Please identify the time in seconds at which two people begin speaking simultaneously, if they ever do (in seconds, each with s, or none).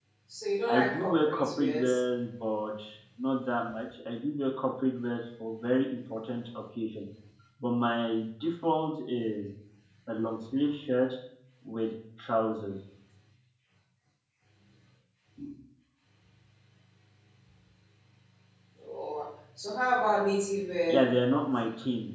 0.7 s